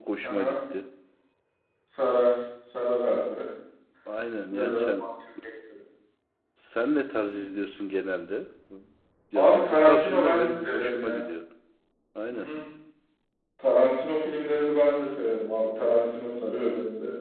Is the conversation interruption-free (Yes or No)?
No